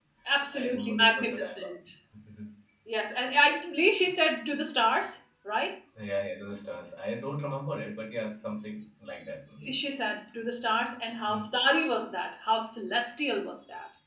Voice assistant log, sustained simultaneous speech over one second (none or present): present